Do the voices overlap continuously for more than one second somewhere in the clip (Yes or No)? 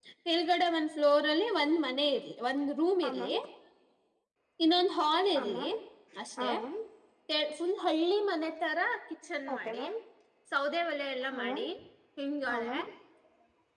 No